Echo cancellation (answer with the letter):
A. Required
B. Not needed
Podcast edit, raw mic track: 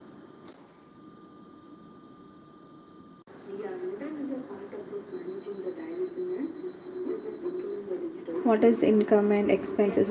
A